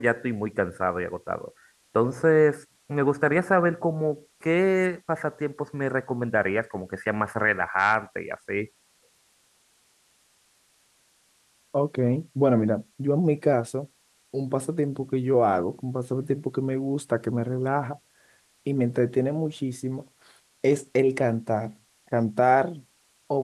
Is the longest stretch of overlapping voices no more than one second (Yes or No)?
Yes